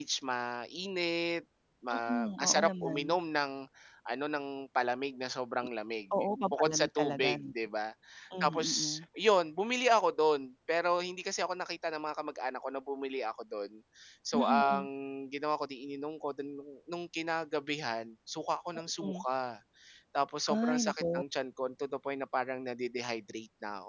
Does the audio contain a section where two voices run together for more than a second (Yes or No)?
Yes